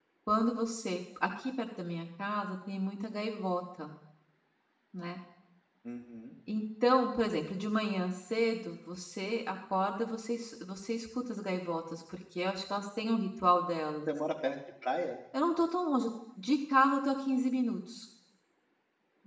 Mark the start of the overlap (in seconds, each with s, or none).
none